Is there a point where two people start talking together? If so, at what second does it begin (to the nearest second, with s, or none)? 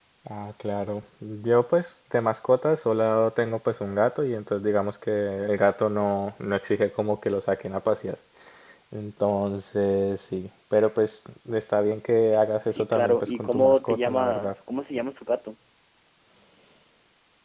13 s